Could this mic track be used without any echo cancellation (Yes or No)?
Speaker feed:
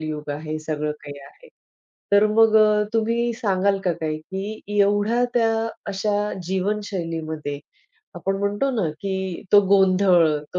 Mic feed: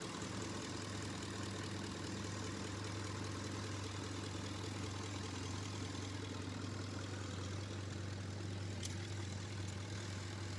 Yes